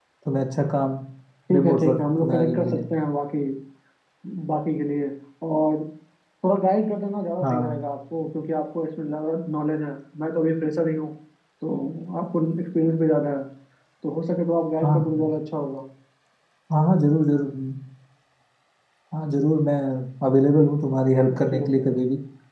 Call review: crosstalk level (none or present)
present